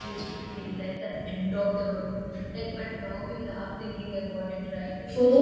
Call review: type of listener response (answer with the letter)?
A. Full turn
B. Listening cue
A